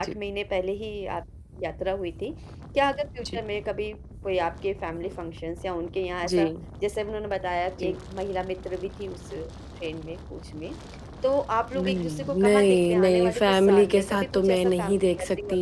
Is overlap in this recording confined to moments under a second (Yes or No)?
No